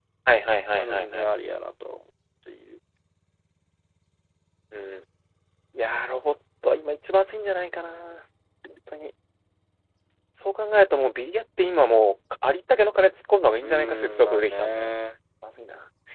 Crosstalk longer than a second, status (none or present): present